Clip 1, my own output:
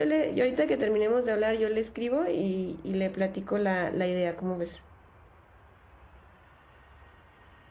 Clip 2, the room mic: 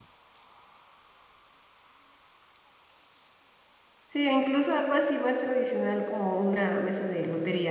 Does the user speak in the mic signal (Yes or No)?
Yes